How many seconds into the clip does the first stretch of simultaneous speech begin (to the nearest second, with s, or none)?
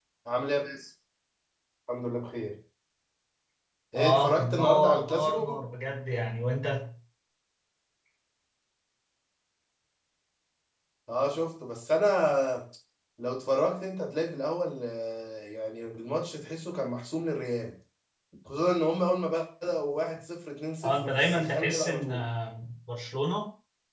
4 s